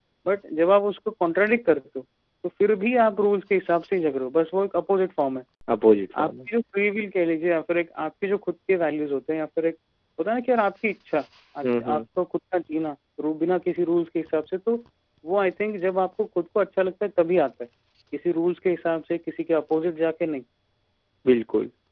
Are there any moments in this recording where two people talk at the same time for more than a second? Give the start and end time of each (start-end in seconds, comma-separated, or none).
none